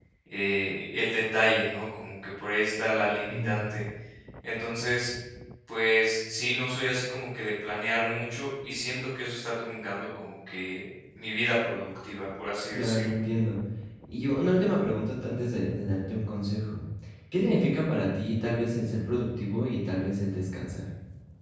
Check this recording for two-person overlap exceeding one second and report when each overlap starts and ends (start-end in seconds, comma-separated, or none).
none